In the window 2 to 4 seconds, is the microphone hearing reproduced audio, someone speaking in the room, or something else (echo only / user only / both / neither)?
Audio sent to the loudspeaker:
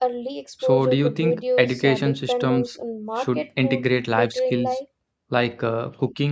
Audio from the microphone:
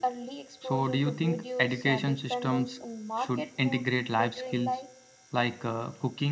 echo only